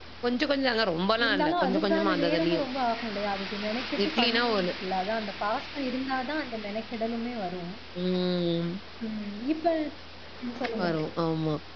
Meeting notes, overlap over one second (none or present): present